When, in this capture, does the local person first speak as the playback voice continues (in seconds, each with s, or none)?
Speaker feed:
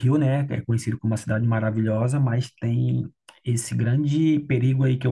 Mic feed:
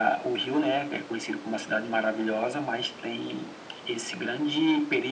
none